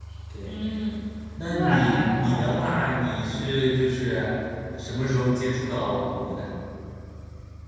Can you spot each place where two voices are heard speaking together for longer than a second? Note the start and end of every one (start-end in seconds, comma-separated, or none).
1.5-2.7